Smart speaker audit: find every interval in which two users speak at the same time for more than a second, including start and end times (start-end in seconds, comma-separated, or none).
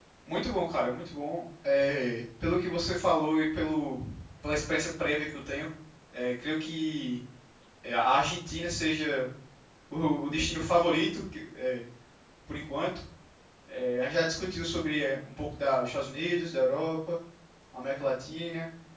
none